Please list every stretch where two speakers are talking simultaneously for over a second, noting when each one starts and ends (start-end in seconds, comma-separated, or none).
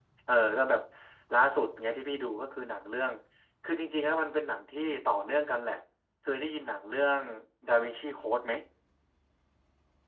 none